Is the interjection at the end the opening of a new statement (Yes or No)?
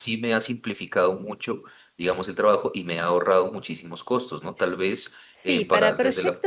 Yes